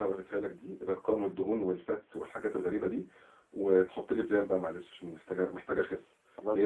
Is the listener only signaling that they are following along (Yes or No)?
Yes